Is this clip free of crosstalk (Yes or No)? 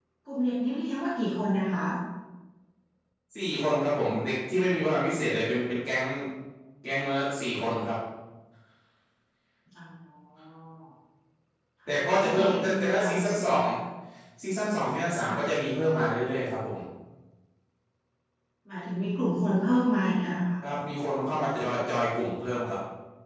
No